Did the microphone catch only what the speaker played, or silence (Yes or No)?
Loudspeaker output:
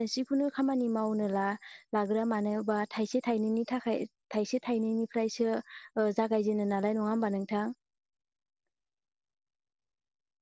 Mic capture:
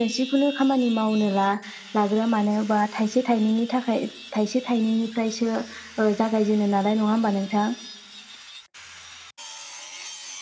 Yes